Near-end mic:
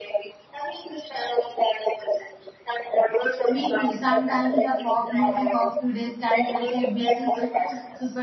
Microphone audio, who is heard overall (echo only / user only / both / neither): both